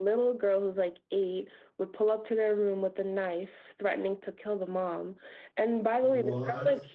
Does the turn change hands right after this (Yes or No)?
No